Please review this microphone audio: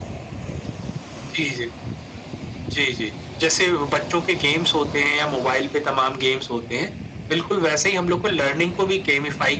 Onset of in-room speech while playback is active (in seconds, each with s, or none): none